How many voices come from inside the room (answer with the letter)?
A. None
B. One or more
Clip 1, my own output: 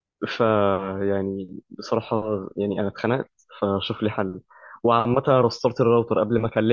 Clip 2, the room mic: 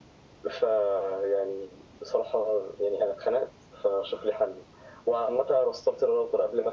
A